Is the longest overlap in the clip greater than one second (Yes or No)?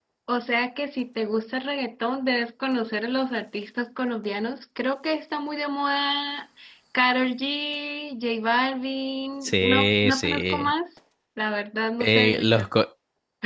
Yes